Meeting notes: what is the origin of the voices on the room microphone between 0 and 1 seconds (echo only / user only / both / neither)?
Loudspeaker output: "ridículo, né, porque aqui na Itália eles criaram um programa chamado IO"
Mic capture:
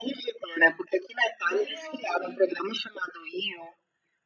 echo only